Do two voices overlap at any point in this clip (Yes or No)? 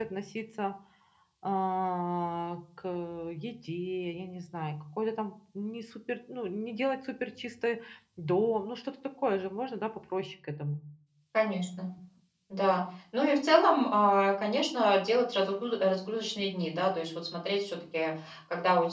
No